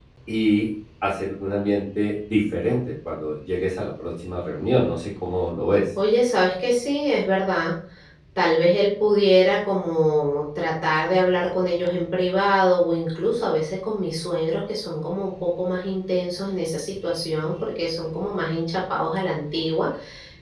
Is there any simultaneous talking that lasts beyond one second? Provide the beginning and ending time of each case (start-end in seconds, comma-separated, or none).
none